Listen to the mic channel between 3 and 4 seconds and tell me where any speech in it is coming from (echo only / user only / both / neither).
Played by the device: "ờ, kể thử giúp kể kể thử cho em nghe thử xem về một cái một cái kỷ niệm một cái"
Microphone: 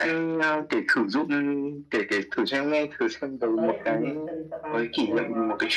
both